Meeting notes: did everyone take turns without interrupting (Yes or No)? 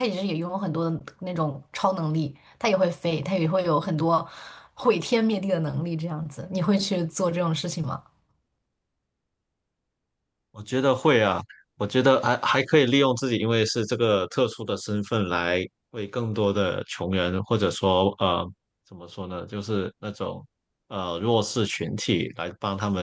Yes